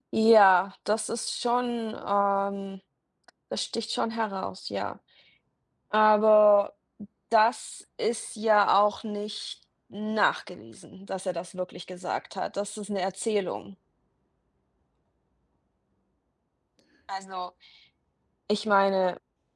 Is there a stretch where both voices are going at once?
No

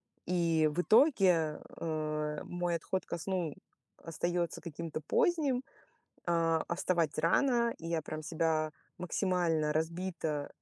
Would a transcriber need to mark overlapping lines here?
No

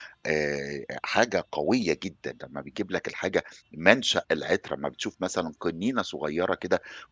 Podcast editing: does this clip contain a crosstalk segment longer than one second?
No

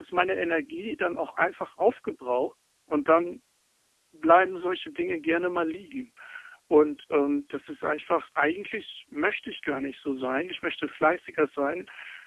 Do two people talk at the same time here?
No

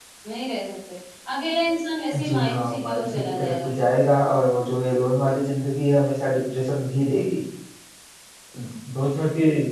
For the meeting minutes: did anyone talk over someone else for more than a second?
Yes, from 2.2 s

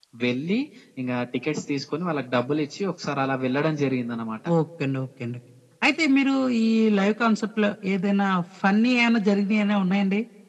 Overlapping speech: No

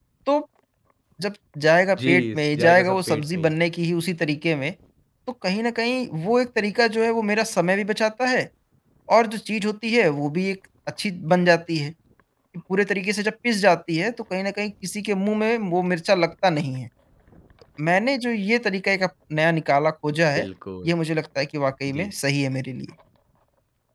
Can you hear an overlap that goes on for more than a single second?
Yes, from 2.0 s

